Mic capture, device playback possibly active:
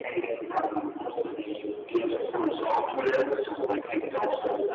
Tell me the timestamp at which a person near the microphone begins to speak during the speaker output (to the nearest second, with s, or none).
none